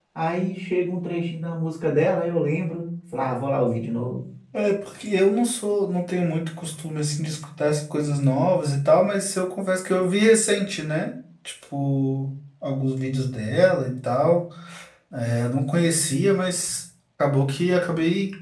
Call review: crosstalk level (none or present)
none